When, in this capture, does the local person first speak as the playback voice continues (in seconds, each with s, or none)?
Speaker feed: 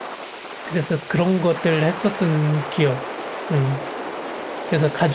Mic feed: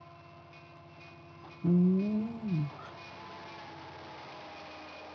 1.6 s